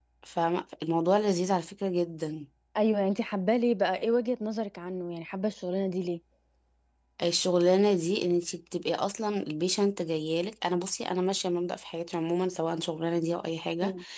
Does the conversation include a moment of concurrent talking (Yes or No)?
No